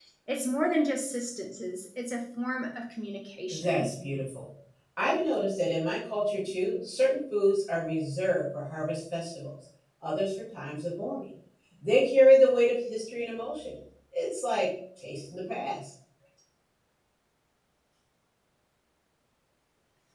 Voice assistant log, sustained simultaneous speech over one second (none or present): none